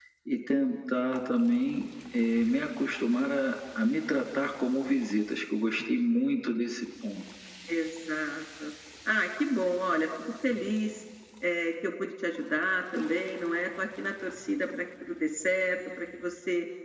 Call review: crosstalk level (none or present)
none